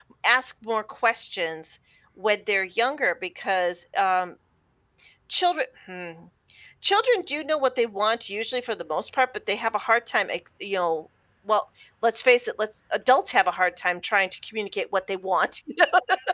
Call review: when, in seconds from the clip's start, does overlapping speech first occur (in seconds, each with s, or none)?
none